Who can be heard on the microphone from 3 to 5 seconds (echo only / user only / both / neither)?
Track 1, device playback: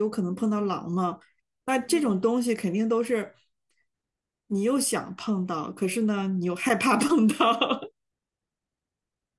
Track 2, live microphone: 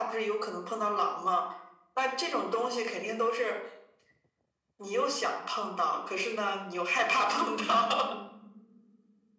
echo only